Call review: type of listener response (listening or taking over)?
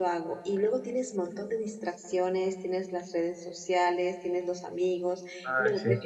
listening